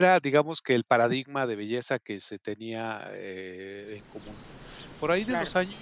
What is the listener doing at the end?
listening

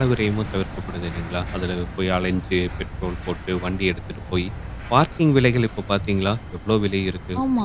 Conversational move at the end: taking over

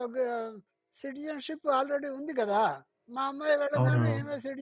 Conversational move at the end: listening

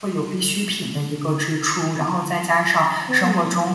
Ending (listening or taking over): listening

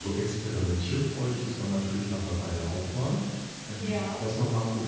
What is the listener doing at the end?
listening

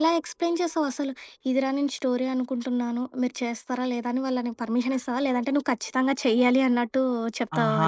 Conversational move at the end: taking over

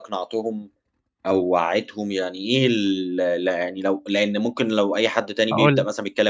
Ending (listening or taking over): listening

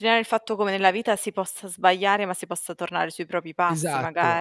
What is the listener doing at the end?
taking over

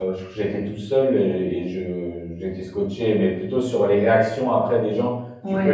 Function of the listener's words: listening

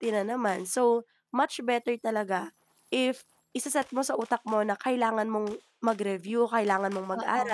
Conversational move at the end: listening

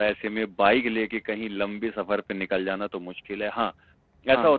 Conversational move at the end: listening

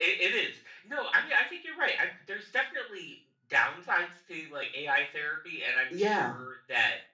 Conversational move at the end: listening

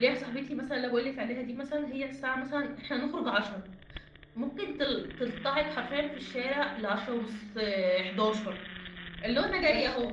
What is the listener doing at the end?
listening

